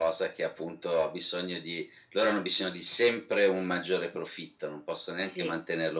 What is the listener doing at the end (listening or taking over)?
listening